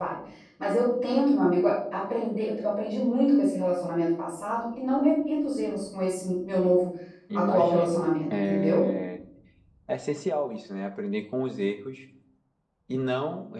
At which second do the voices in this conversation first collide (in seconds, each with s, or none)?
7.3 s